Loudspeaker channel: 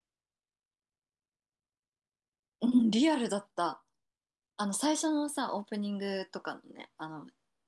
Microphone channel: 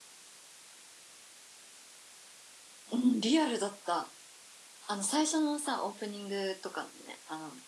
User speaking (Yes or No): No